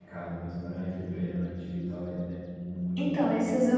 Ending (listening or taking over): taking over